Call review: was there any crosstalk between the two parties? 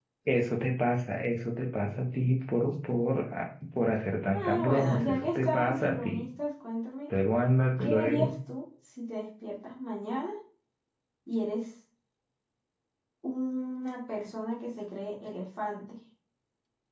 Yes, from 4.3 s

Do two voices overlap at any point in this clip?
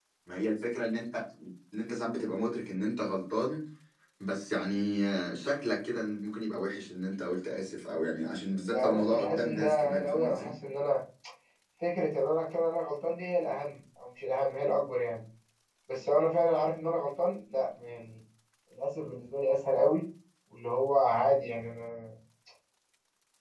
Yes, from 8.7 s

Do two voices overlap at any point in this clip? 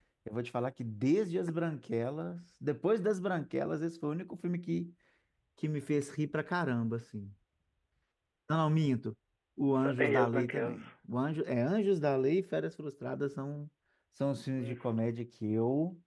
Yes, from 9.6 s

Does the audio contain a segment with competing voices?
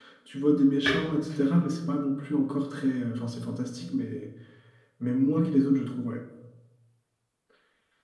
No

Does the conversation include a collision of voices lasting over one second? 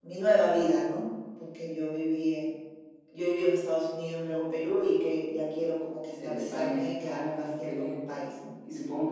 Yes, from 6.2 s

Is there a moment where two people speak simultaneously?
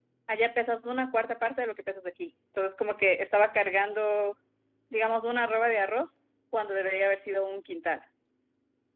No

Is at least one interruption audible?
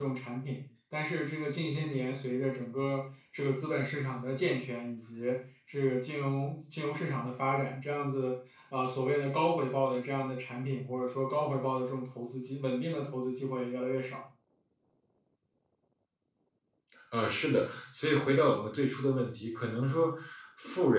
No

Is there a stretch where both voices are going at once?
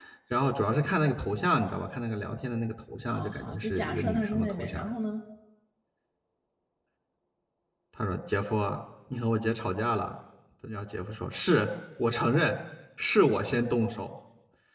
Yes, from 3.1 s

